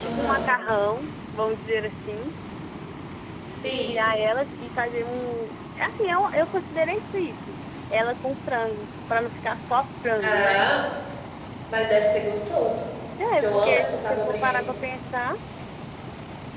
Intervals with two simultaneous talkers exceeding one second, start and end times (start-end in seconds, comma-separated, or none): 13.4-14.7